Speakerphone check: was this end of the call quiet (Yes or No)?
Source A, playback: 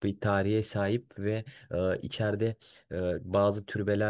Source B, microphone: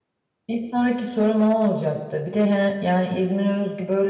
No